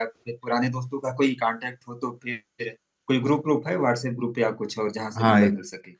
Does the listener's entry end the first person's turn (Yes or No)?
Yes